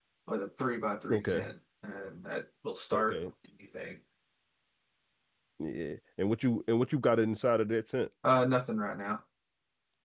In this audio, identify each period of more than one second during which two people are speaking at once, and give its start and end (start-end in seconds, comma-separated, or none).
none